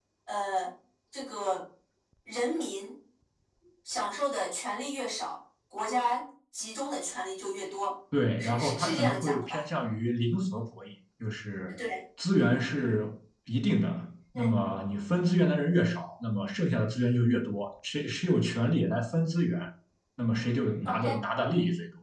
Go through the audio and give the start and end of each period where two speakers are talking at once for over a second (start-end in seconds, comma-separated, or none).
8.4-9.6